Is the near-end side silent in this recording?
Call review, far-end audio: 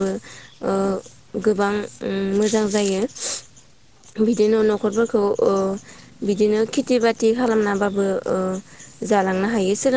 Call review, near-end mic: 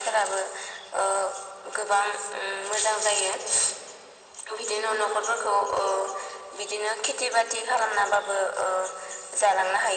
Yes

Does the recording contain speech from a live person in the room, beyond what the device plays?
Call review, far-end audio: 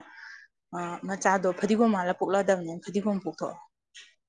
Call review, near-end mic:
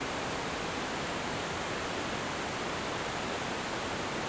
No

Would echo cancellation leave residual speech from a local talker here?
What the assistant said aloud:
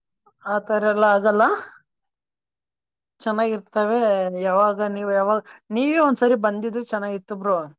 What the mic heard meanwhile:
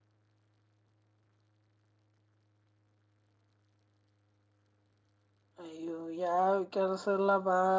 Yes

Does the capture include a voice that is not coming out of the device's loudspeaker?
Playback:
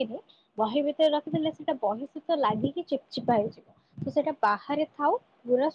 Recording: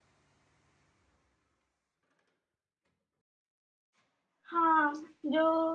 Yes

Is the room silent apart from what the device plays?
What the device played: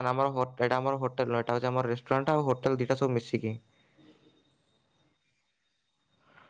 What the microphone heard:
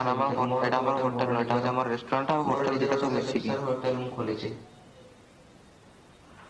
No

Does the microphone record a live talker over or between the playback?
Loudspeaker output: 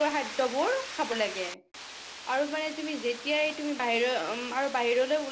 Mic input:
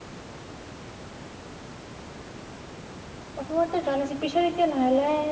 Yes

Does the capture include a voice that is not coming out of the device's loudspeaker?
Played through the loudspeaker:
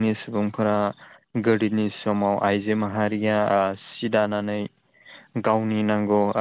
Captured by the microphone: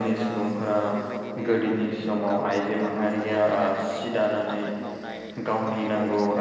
Yes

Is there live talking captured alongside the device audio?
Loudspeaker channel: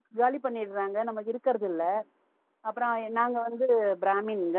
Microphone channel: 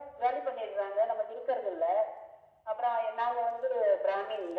No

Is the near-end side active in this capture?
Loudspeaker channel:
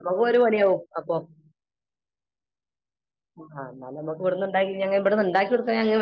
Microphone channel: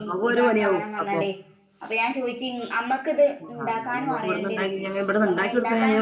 Yes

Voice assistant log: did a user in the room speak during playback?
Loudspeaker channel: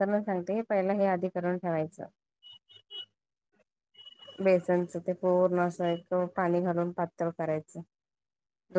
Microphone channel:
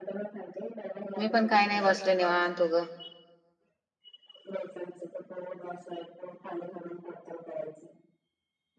Yes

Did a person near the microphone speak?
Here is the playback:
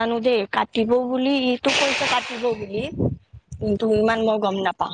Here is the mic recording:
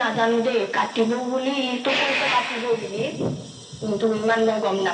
No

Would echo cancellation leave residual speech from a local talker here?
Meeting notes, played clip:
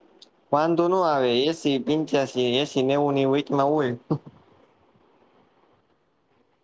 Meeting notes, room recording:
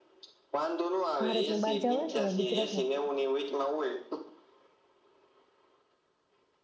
Yes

